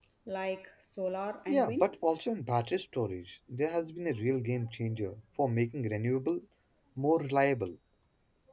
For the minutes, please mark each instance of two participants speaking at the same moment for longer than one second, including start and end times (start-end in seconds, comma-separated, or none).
none